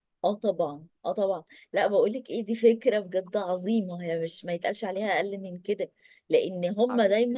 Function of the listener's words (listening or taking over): listening